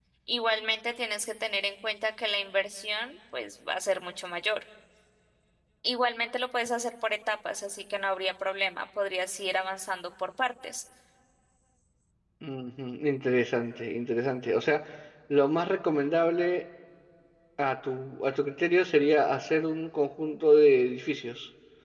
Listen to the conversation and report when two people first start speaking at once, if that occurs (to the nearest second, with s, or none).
none